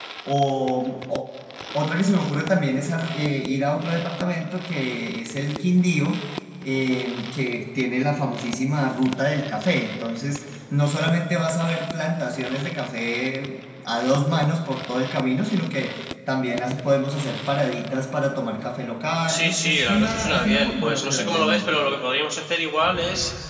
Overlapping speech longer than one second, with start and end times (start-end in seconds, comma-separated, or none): 19.3-21.8